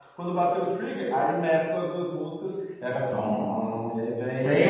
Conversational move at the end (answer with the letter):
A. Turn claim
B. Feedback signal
A